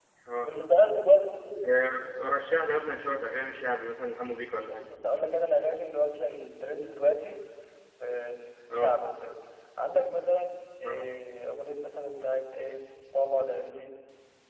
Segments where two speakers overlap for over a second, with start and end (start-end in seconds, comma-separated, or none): none